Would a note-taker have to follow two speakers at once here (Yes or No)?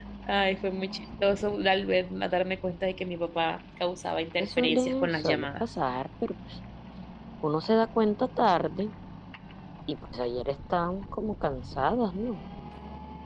Yes